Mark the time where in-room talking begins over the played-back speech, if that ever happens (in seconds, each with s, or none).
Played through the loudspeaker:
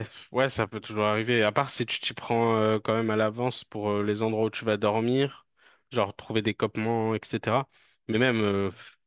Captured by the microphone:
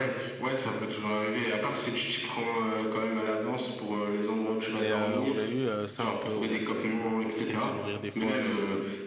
4.7 s